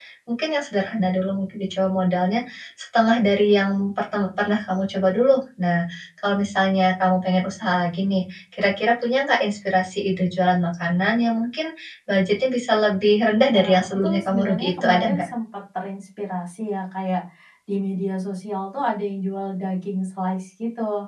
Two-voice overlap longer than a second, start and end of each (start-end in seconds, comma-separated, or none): 13.5-15.3